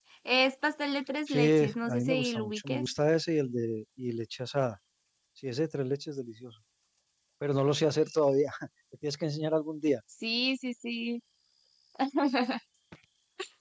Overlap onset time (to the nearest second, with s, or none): 1 s